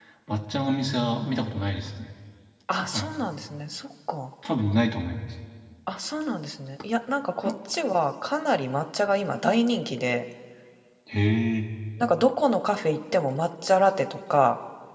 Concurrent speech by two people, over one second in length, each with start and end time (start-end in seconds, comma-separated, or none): none